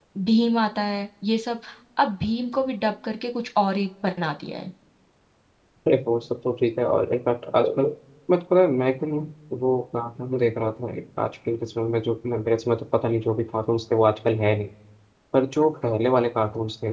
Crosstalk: none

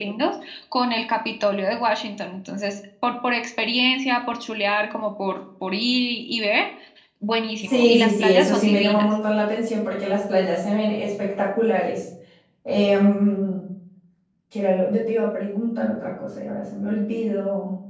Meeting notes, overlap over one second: present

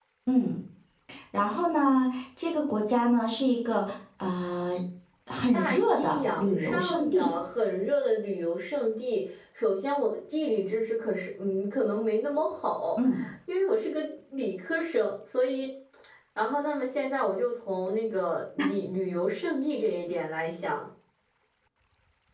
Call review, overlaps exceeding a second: present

